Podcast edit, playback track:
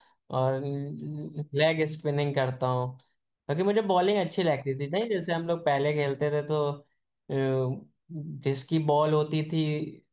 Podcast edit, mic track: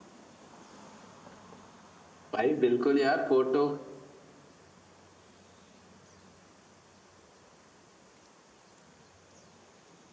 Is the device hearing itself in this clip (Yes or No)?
No